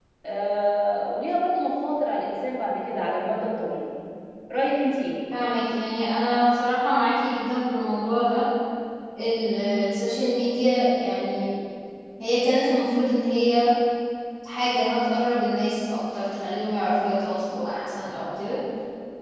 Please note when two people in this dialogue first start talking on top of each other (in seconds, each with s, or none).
none